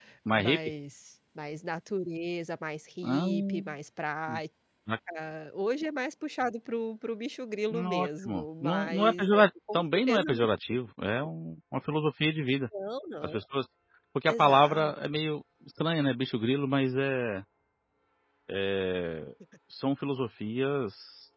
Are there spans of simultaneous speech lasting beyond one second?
Yes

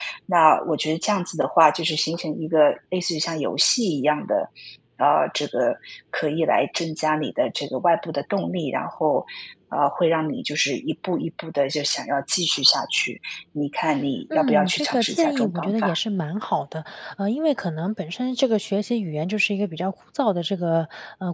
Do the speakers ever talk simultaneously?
Yes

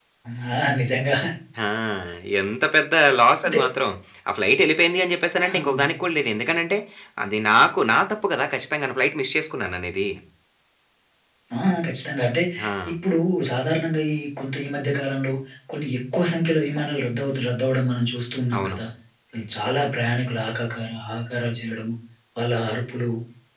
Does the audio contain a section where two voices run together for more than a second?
No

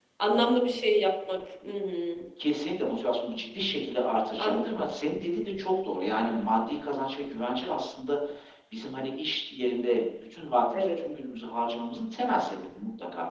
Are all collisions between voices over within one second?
Yes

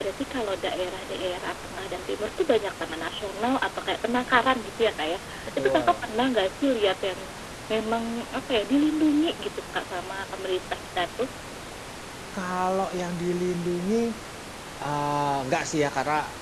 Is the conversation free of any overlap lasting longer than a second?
Yes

